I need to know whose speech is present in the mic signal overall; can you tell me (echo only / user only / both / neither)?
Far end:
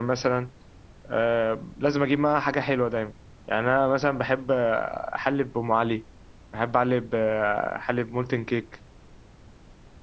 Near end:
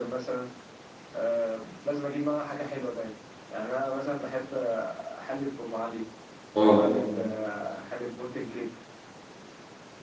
both